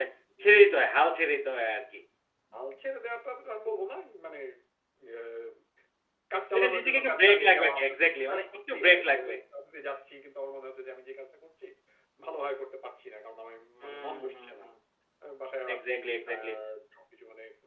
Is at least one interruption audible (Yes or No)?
Yes